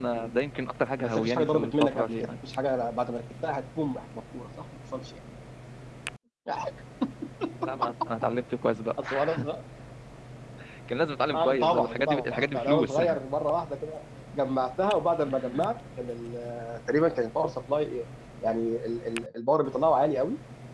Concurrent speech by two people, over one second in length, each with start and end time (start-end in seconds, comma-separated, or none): 1.0-2.3, 11.4-13.0